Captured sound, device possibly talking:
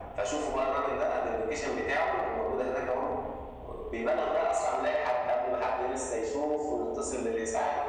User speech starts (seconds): none

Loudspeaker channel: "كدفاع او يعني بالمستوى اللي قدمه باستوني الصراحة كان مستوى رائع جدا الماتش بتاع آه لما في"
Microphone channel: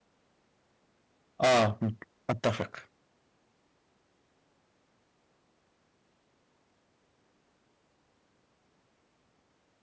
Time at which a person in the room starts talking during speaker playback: 1.4 s

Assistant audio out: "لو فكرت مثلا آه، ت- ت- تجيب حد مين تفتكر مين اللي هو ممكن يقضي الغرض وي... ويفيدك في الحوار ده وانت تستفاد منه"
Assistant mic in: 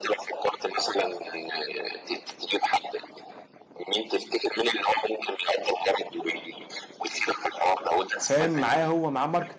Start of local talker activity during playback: 8.2 s

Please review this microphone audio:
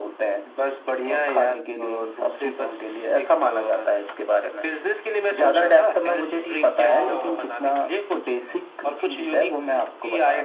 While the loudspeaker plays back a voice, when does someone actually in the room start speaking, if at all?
6.9 s

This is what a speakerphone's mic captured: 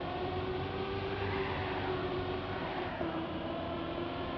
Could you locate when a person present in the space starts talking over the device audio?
none

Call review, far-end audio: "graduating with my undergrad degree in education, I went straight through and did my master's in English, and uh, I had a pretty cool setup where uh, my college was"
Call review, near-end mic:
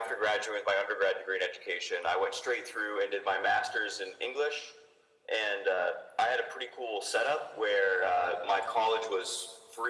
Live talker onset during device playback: none

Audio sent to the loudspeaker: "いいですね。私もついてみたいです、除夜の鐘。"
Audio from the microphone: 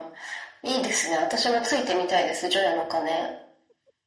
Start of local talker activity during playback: none

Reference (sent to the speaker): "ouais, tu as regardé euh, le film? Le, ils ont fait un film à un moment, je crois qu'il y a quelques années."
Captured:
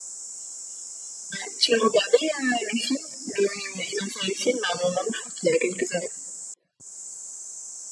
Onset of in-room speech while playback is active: none

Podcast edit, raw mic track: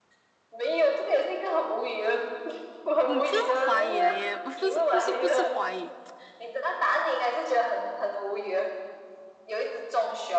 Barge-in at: 3.0 s

